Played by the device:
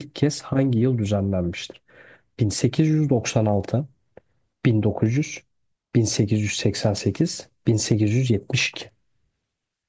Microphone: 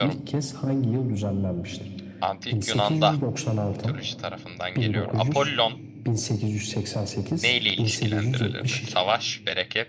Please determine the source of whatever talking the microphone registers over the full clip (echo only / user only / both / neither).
both